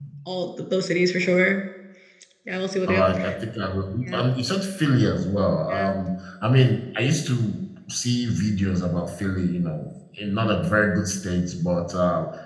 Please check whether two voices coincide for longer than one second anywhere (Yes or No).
No